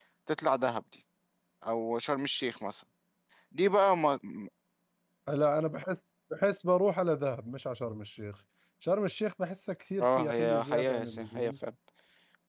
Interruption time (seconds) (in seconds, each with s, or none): 10.0 s